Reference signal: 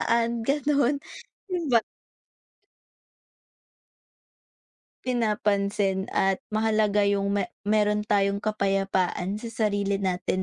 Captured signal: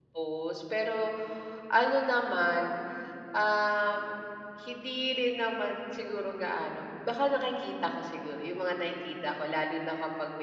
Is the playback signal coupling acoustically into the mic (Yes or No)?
No